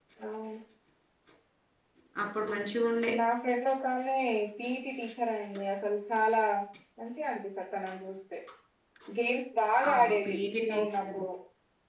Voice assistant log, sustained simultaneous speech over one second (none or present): present